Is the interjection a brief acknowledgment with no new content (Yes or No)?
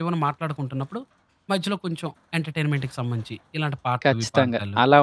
No